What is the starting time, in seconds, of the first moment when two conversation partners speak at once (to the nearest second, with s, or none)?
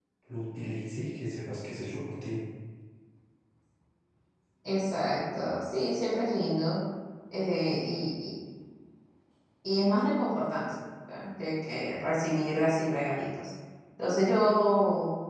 none